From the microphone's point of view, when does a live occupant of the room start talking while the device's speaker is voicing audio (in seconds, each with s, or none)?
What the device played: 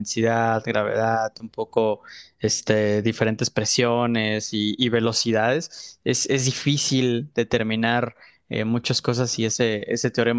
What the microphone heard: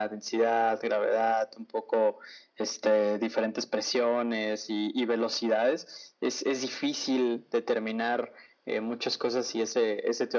none